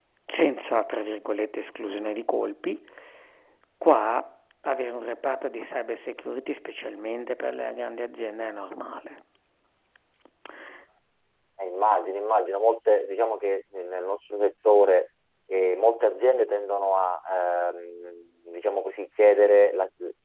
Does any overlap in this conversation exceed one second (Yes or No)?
No